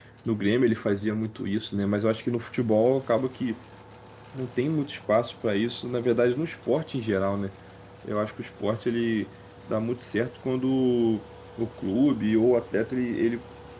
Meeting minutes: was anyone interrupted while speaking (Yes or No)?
No